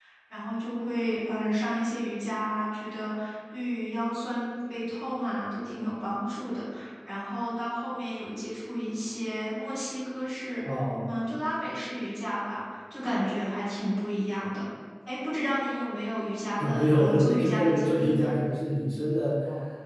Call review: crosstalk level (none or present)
present